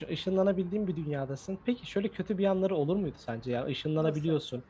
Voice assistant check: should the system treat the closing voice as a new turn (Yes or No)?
No